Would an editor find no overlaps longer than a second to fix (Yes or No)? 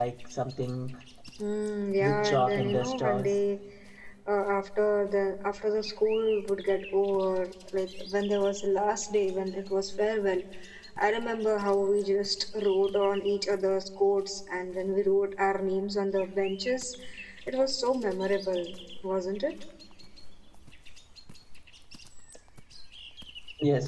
No